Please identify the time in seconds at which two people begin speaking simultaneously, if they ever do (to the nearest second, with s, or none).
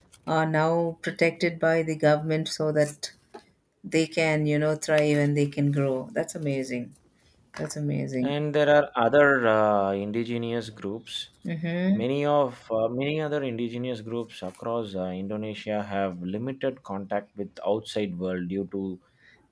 none